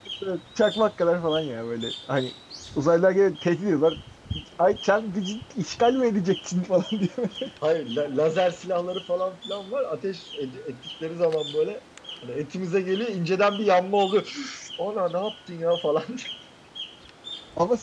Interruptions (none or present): none